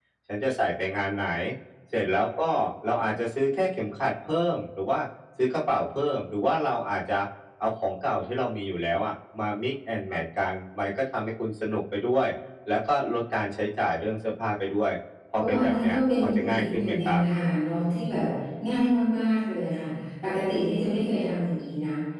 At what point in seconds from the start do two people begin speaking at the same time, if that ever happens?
15.3 s

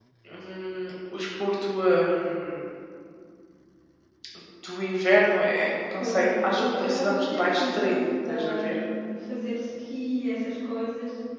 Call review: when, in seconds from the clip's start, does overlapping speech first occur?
6.0 s

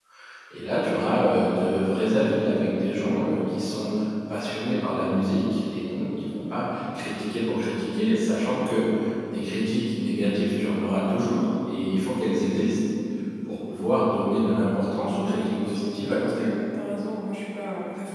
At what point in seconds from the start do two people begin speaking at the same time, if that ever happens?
15.2 s

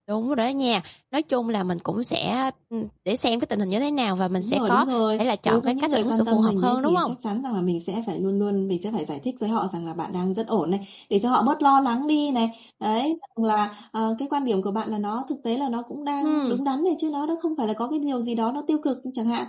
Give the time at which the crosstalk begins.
4.4 s

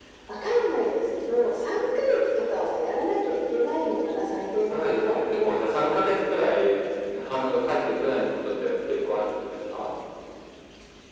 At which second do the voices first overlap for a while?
4.7 s

